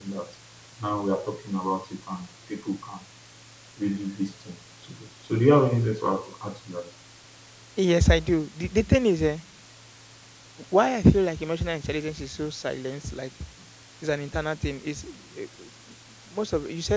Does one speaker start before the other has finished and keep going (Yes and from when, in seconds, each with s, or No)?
No